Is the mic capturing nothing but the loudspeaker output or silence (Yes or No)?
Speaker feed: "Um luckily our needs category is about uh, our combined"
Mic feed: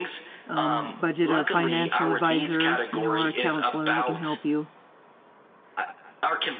No